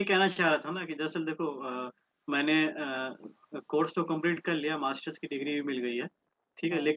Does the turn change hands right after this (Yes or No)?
No